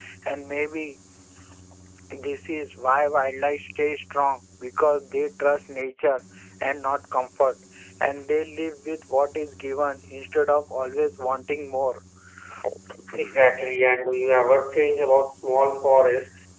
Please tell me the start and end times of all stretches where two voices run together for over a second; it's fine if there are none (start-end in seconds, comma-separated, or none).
none